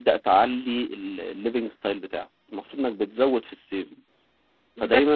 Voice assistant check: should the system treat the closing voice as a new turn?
No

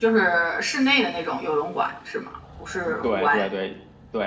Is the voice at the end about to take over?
Yes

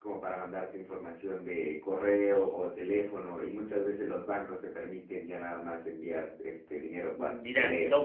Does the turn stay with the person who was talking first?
No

